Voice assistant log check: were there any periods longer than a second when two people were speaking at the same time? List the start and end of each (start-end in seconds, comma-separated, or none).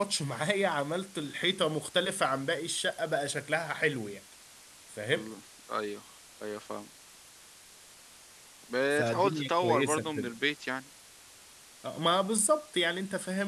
8.9-10.3